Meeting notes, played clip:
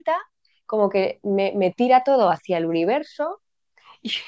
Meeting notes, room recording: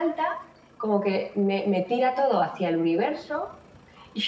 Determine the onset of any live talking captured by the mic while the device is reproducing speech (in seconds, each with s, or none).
none